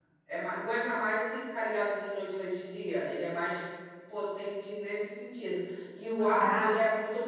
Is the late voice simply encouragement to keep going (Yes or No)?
Yes